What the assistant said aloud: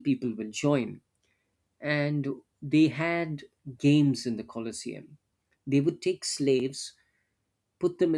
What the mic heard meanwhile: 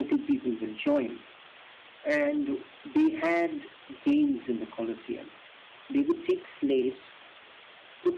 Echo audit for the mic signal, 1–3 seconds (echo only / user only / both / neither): echo only